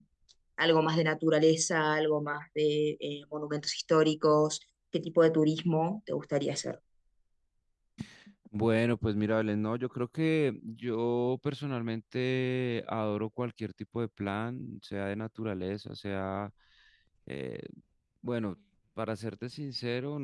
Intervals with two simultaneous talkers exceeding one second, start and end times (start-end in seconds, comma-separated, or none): none